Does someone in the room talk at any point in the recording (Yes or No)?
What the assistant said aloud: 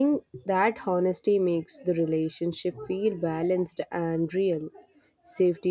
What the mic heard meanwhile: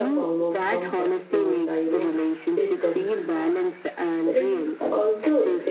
Yes